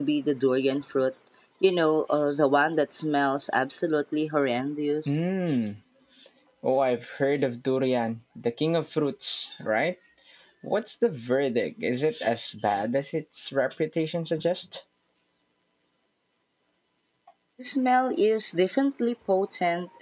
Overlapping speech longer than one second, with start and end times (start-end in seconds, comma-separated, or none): none